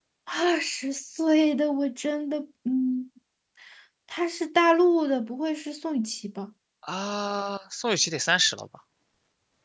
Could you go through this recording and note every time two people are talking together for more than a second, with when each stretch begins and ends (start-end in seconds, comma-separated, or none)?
none